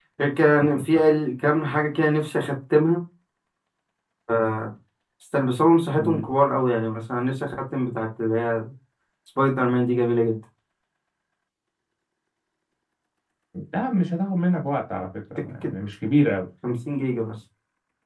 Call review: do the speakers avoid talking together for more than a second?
Yes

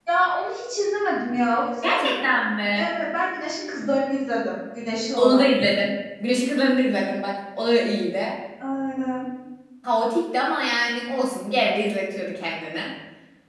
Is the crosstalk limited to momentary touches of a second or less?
Yes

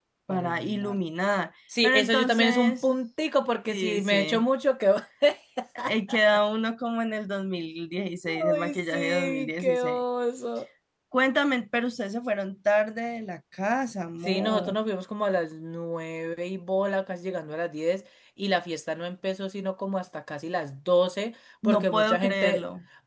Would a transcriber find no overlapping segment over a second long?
No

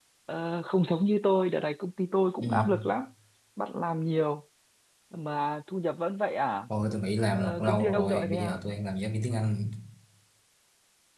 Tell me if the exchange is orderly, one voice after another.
No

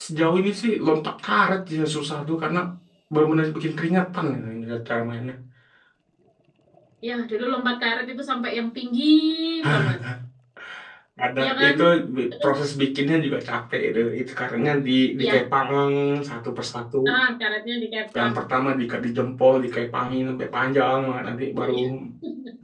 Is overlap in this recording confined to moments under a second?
Yes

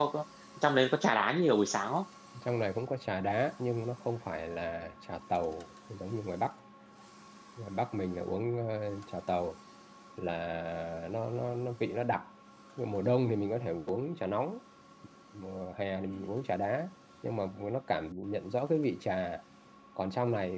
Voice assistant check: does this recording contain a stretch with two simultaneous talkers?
No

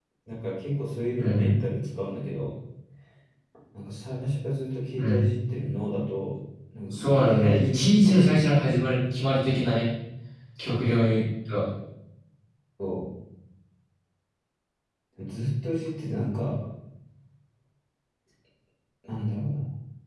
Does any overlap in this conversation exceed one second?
Yes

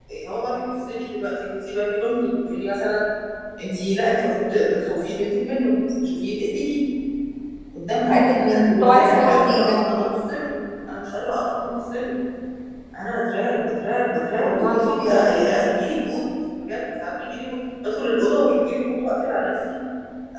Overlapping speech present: Yes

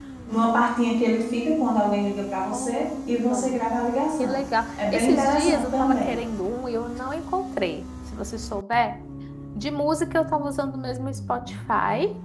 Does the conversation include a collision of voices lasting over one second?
Yes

